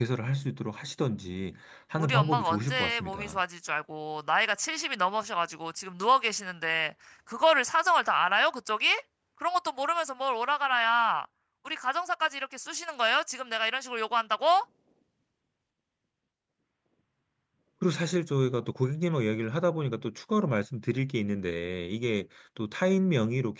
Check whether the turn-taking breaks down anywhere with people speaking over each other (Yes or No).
Yes